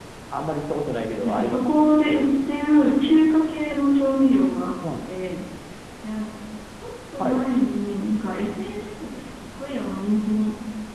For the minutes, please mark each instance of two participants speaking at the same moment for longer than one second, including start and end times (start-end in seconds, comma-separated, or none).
1.2-2.5